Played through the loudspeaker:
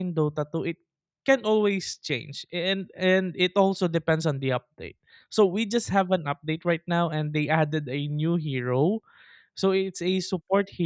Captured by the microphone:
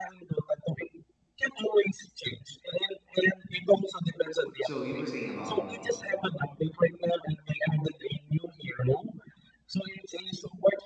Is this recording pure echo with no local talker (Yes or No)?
No